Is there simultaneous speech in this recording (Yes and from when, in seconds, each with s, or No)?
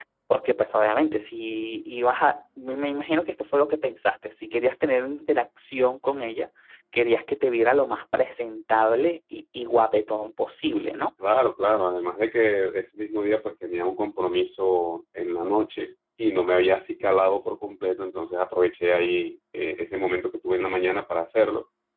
No